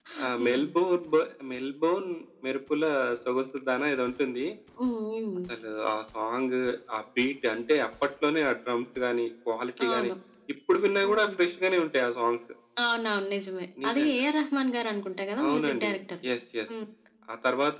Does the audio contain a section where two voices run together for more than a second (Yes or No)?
No